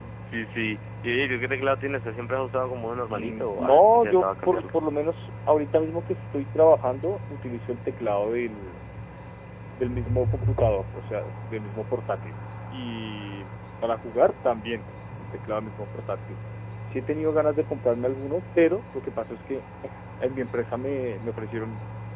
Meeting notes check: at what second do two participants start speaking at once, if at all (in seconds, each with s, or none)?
3.1 s